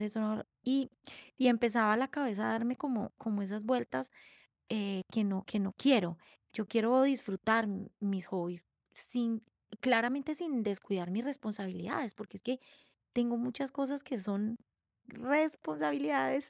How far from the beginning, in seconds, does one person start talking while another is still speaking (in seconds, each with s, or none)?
none